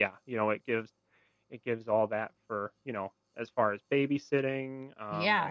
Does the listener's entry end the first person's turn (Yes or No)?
Yes